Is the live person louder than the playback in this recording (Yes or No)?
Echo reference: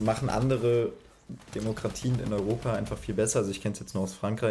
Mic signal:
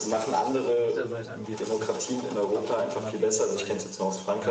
No